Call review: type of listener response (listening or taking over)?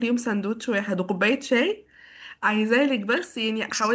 listening